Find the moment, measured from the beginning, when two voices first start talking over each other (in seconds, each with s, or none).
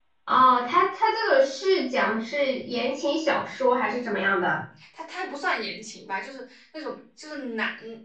none